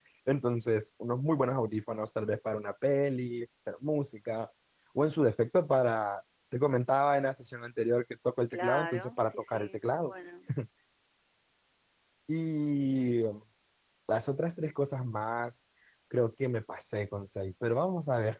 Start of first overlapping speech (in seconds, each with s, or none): 8.5 s